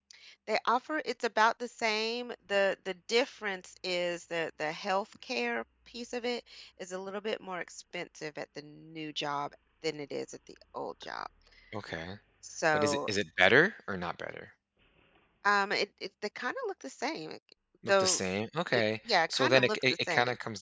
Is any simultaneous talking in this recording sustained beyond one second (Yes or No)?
Yes